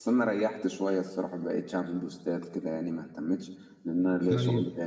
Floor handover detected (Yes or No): Yes